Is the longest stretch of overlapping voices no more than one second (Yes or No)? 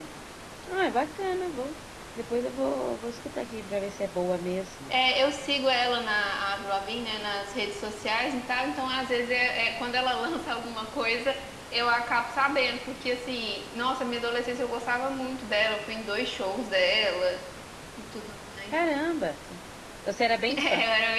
Yes